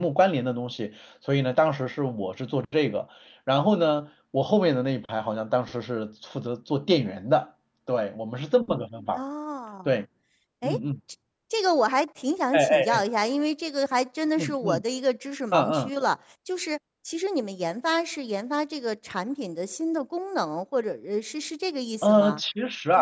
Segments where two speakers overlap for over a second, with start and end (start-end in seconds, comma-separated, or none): none